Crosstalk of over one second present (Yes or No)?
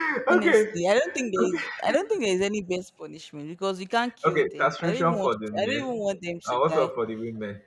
Yes